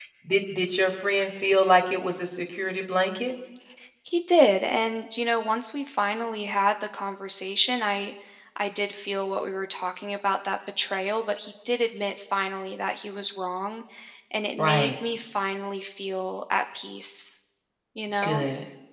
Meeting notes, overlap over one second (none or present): none